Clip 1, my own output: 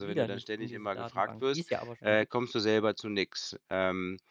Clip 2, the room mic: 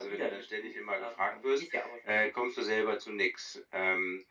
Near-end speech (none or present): none